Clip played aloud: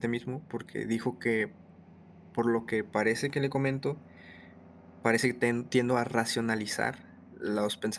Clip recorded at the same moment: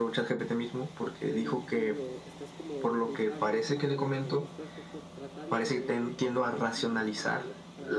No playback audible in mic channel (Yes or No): No